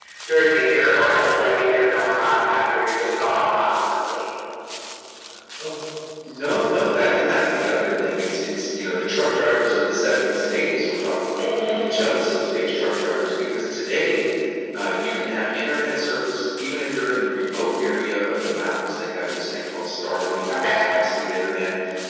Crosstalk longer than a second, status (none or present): none